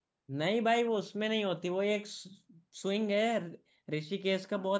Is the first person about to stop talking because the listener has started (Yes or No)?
No